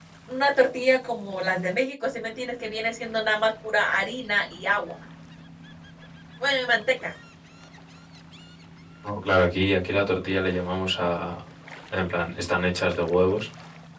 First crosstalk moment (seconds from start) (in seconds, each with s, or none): none